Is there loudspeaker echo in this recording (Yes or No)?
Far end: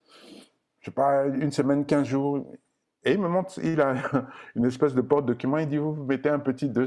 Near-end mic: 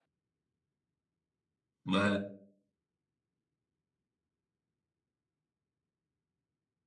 No